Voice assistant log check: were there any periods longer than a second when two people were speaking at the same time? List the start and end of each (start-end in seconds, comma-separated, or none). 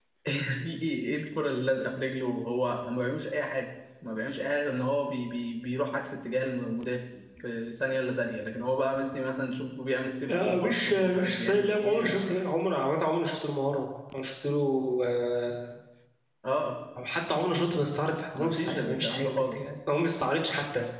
10.3-12.1, 18.4-19.6